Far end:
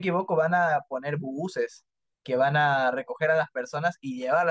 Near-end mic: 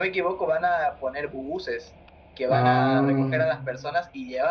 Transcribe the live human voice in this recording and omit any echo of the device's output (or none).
Ah,